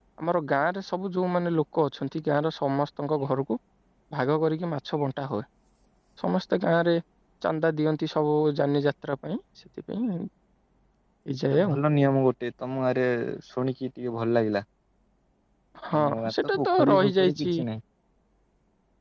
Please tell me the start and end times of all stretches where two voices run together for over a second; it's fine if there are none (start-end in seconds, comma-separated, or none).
16.0-17.6